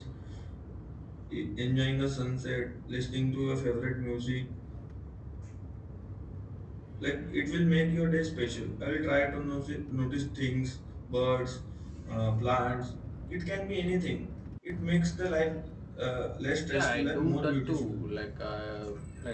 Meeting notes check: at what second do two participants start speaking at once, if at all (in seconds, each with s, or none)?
16.7 s